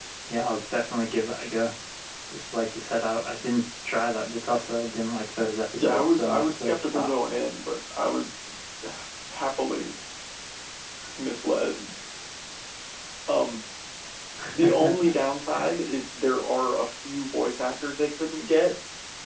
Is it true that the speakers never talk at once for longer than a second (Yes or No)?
No